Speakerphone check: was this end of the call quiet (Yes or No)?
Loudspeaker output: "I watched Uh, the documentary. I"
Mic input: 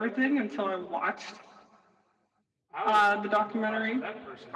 No